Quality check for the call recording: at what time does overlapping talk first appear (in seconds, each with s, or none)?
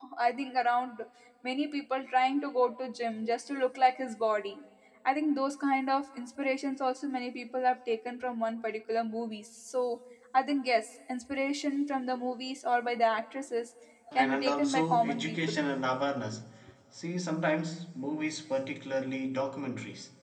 14.2 s